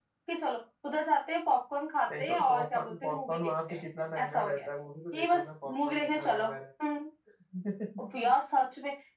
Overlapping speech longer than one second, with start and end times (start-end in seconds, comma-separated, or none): 2.1-3.8, 5.1-6.4